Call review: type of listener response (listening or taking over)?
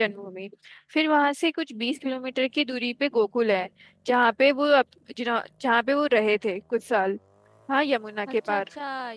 taking over